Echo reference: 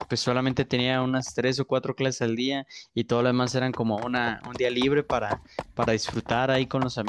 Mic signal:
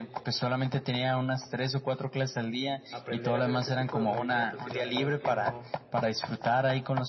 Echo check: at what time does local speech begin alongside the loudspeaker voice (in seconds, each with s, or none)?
2.9 s